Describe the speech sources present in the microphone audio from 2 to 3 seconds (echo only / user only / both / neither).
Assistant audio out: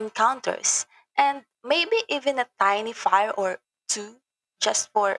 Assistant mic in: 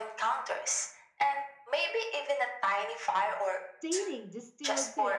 echo only